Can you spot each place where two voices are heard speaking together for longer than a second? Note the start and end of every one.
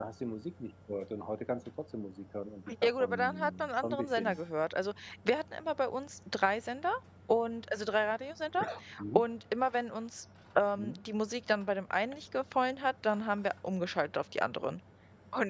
2.8-4.4

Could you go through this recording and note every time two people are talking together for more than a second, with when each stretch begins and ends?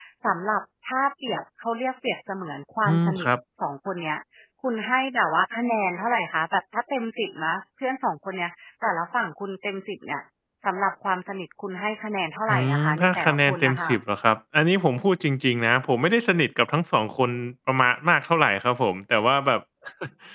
12.5-13.9

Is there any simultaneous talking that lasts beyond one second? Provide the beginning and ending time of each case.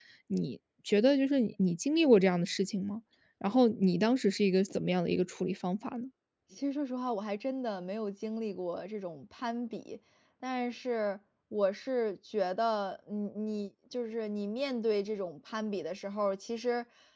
none

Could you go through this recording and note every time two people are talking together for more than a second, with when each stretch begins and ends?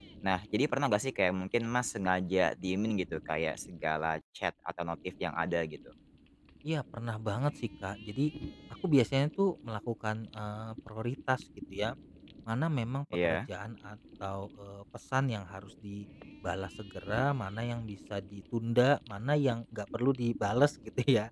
none

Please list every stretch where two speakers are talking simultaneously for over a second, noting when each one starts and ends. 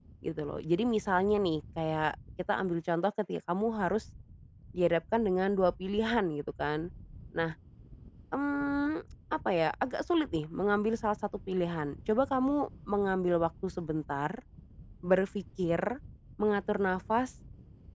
none

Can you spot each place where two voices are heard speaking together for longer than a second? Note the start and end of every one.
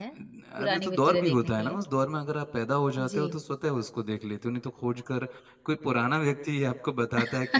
0.6-1.8

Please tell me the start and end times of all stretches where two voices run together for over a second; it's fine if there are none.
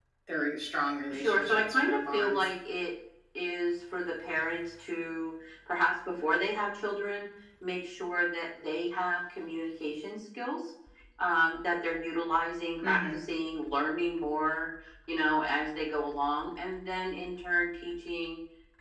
1.1-2.4

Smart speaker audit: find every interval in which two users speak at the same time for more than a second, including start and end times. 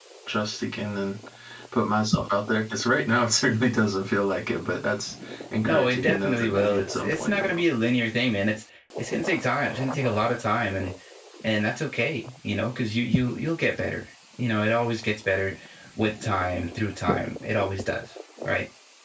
5.6-7.6

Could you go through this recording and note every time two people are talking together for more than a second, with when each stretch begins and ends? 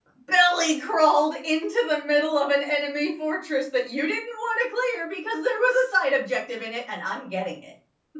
none

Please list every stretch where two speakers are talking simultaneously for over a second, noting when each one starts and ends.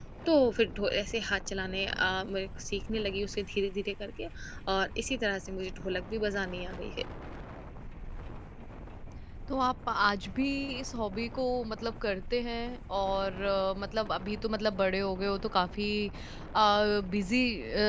none

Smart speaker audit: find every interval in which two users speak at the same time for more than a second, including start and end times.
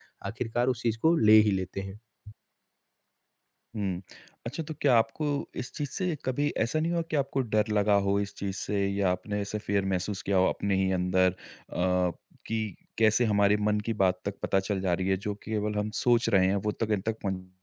none

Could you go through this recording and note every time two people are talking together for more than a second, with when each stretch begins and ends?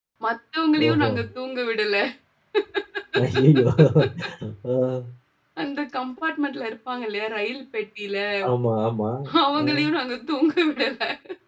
none

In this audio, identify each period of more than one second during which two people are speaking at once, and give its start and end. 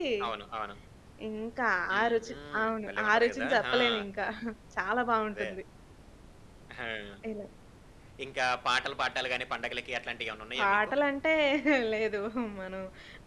1.9-3.8

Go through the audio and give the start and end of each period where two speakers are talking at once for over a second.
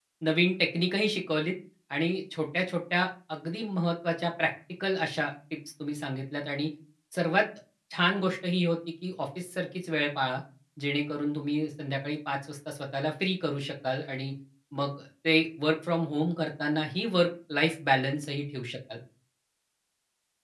none

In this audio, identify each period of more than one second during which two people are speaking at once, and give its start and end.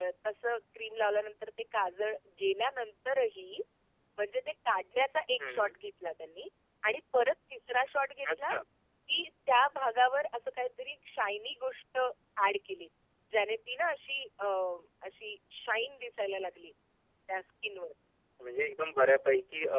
none

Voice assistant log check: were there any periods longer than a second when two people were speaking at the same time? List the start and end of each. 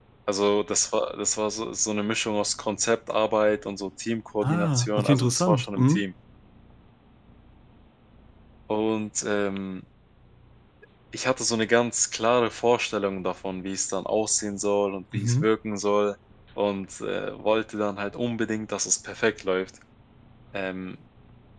4.4-6.0

